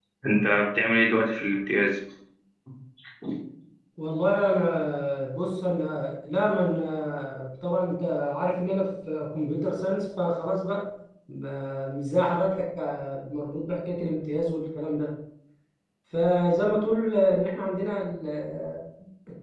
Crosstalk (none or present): none